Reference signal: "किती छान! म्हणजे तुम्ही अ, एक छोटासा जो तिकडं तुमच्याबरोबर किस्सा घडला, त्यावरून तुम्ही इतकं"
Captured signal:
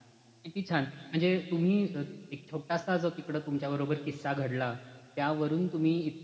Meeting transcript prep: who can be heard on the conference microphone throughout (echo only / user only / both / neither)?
echo only